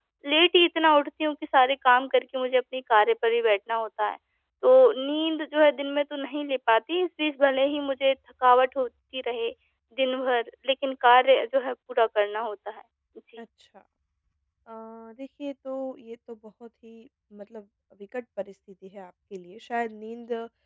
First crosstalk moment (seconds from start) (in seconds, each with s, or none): none